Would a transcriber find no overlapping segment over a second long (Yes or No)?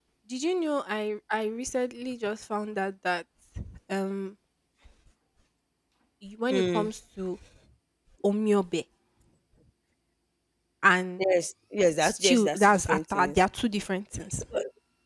No